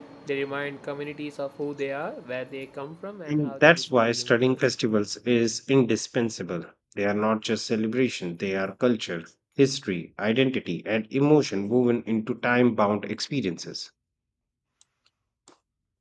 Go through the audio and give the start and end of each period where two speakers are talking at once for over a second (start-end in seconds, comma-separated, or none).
3.3-4.6